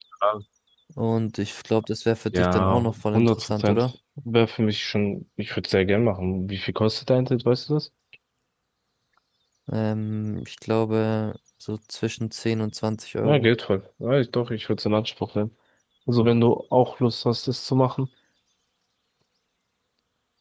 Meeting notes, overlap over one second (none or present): present